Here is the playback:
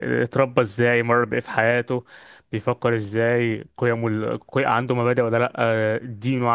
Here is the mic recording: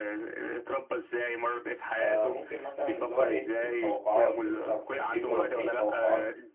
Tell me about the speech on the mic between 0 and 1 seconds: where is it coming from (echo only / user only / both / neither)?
echo only